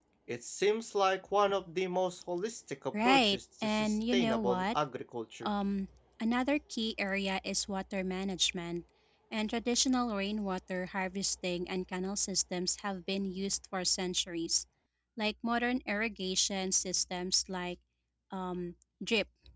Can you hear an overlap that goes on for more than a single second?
Yes, from 2.9 s

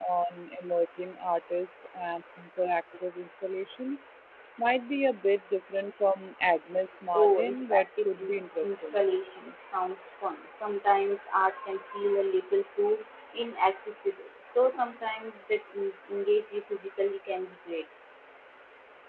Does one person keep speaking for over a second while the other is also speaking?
Yes, from 7.1 s

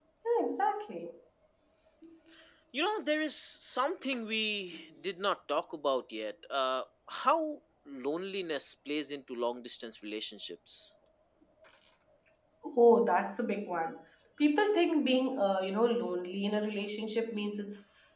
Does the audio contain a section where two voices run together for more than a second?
No

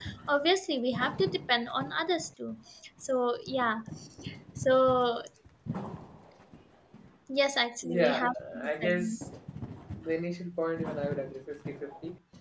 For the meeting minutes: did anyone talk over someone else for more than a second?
Yes, from 7.8 s

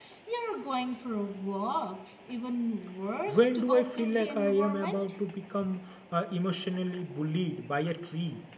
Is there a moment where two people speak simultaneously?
Yes, from 3.3 s

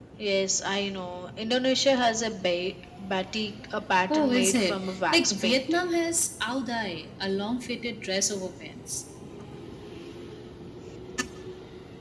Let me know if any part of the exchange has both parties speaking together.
Yes, from 4.1 s

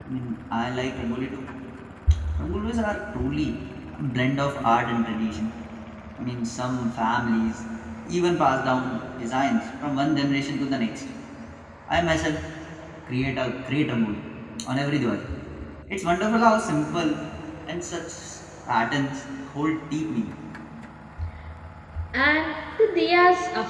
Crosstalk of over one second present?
No

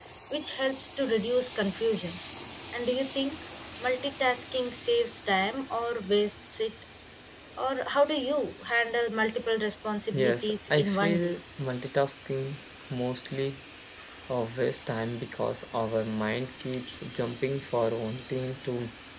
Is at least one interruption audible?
Yes, from 10.1 s

